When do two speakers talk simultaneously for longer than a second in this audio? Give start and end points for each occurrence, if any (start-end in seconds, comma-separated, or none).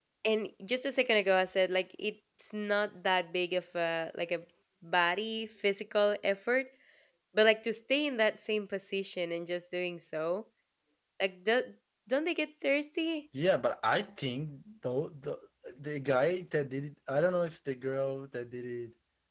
none